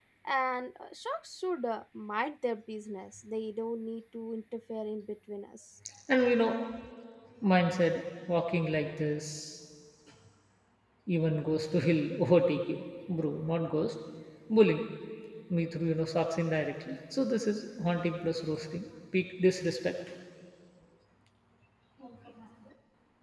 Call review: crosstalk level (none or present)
none